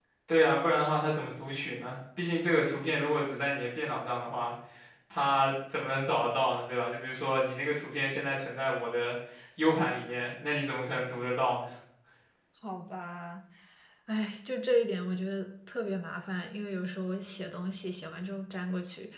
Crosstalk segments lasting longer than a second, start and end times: none

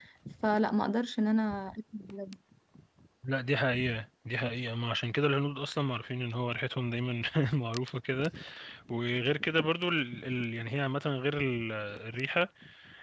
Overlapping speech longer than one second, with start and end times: none

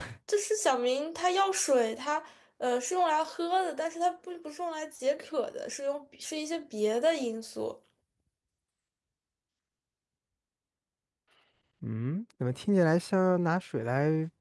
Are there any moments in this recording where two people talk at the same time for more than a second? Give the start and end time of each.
none

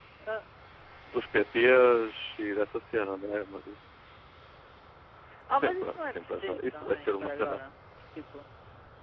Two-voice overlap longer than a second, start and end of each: 5.6-7.6

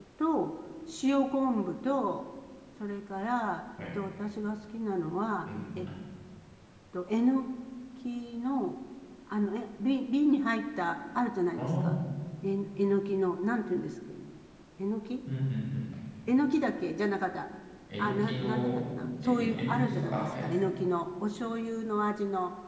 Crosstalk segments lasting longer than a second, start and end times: 18.0-20.5

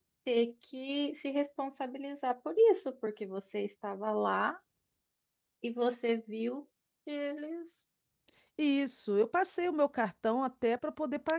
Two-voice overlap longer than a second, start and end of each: none

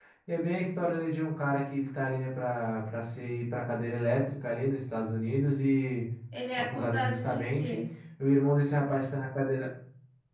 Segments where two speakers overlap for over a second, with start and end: 6.6-7.8

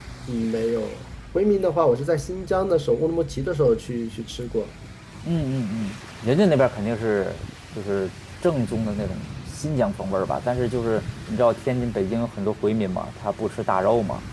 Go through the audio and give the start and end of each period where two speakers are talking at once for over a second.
none

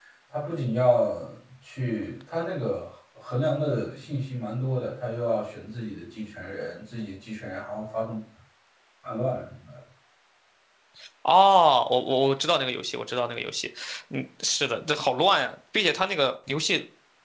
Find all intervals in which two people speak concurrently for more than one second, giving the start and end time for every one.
none

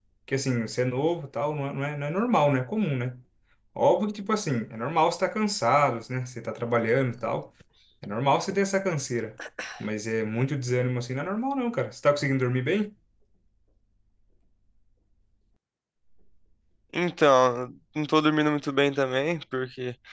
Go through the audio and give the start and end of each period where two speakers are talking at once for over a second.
none

